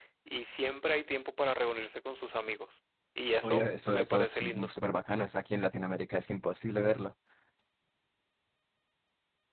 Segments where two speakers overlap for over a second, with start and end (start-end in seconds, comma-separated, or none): 3.4-4.7